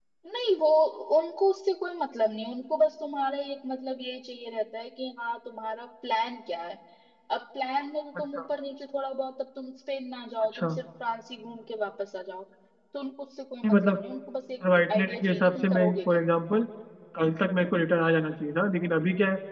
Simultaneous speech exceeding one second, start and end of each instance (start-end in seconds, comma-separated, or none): 14.9-16.2